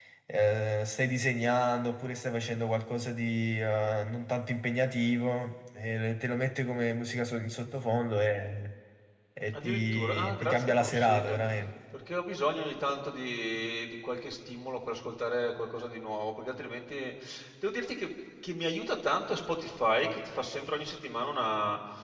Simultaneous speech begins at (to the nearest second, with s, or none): 10 s